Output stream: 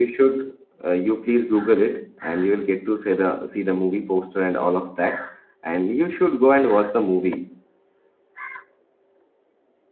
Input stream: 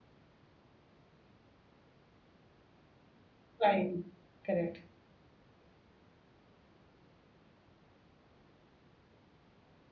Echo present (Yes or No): No